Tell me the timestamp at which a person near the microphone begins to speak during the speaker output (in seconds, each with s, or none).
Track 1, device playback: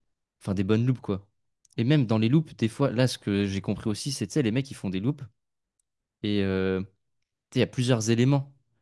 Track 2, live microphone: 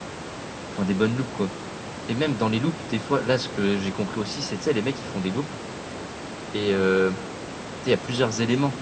none